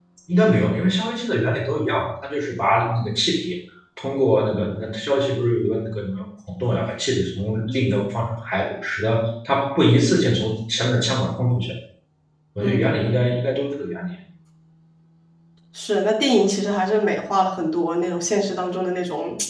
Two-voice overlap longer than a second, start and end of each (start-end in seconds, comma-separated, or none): none